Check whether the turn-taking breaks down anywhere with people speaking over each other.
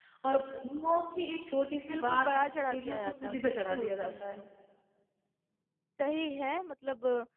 Yes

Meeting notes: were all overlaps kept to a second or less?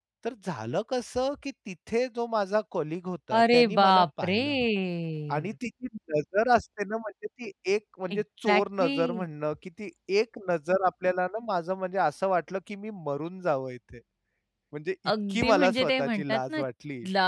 No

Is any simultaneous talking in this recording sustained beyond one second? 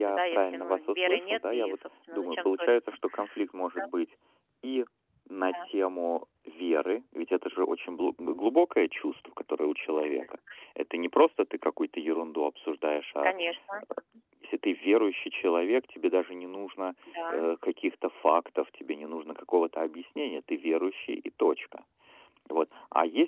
Yes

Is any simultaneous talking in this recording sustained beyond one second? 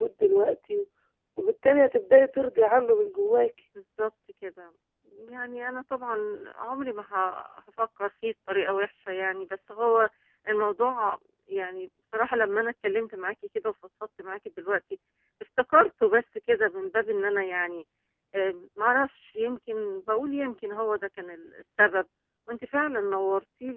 No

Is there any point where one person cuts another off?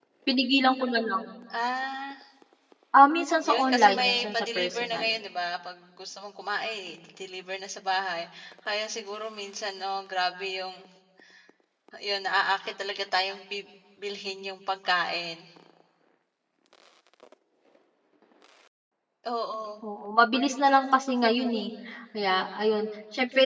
Yes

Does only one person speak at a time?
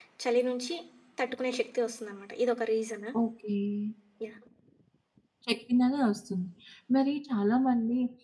Yes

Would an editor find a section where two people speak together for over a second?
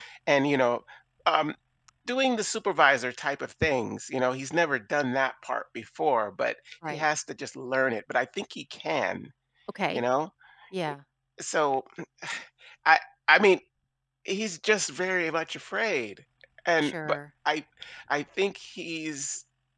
No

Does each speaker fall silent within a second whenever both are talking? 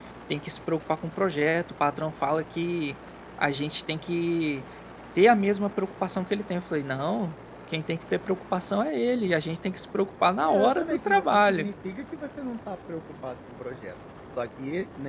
No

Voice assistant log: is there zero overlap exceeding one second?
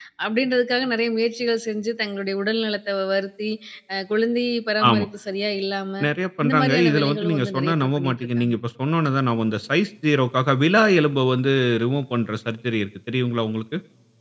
No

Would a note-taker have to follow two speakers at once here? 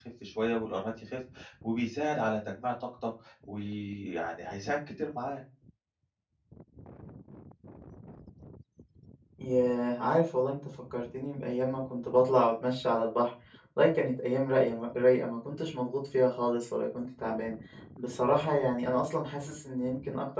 No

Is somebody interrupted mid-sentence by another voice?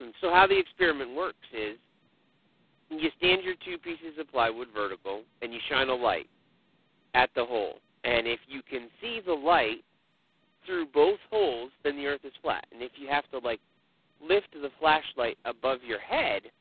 No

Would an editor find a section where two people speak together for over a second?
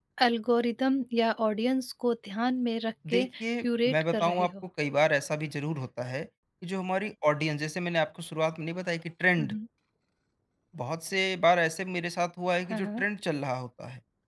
Yes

